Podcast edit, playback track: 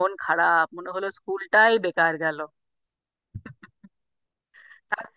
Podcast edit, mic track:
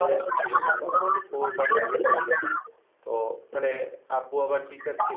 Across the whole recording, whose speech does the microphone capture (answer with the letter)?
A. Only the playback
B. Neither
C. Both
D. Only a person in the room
C